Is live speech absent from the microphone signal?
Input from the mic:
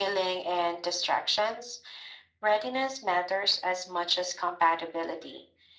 Yes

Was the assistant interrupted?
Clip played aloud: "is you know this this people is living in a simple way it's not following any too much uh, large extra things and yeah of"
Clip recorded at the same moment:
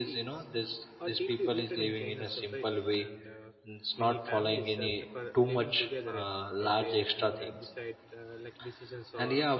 Yes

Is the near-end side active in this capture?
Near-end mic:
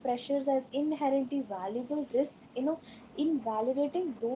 Yes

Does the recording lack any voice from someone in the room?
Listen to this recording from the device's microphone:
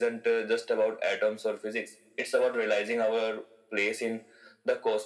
Yes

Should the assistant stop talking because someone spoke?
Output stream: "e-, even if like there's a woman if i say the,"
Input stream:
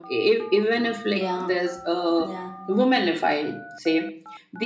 Yes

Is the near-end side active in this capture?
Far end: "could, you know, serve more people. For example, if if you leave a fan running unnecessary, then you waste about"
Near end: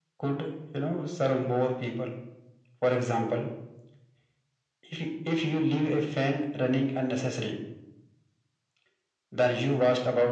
No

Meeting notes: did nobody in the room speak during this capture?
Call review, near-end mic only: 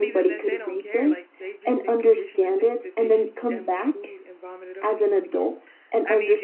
No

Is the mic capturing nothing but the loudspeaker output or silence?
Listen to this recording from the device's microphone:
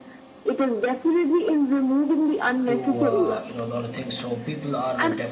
No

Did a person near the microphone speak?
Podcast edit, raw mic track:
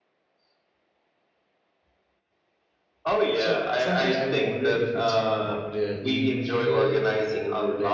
Yes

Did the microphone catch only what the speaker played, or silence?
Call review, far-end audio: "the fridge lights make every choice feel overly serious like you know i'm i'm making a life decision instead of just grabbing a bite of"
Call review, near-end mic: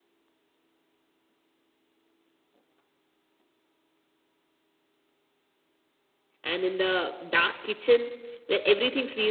No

